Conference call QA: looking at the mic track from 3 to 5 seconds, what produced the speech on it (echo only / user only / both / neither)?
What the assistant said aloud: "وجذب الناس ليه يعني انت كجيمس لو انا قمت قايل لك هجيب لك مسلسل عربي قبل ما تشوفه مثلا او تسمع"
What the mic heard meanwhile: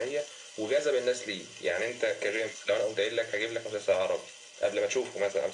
echo only